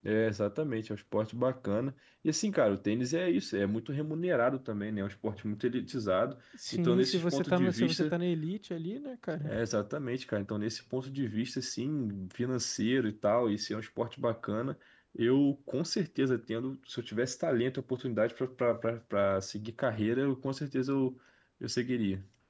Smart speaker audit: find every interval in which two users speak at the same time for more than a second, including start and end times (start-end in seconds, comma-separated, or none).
6.7-8.1